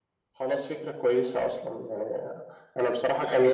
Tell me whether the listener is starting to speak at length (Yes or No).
No